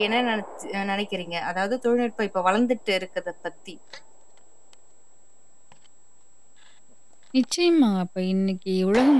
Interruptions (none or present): none